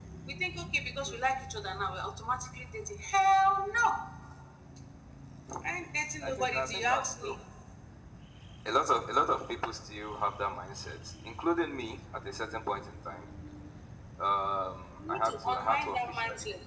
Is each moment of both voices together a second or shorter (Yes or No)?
No